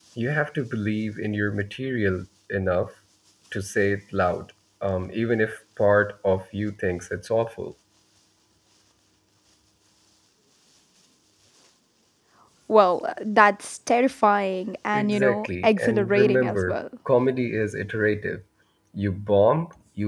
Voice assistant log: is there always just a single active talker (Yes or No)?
No